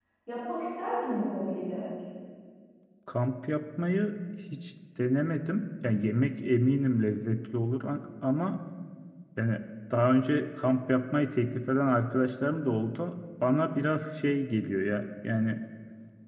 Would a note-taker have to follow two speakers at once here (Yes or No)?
No